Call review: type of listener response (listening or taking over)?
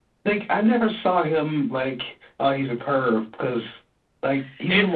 listening